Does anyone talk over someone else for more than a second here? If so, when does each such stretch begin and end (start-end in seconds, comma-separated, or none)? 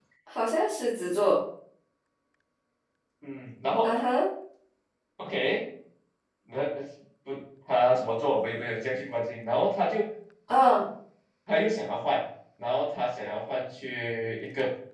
none